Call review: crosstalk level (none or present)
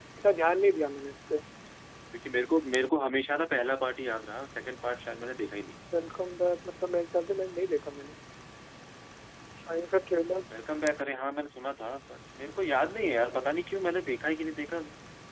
none